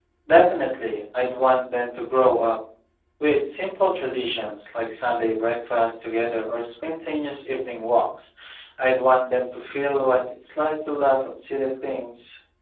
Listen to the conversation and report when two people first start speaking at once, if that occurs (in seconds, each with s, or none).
none